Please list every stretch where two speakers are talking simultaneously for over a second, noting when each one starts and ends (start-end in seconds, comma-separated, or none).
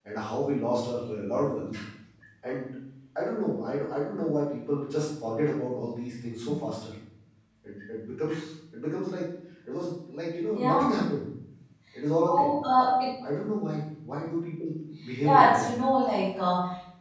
none